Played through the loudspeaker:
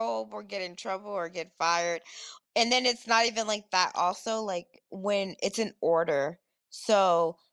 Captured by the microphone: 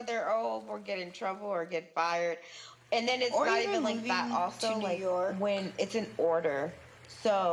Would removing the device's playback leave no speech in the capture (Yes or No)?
No